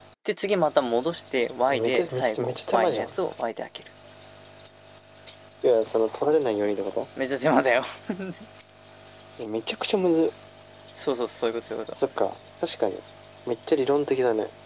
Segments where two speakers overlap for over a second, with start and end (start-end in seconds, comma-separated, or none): 1.7-3.2